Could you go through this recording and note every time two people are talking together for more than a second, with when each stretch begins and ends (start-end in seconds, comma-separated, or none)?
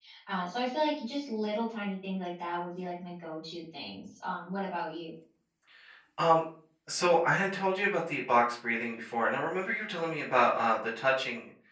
none